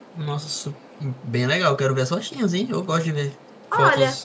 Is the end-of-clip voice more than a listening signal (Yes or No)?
Yes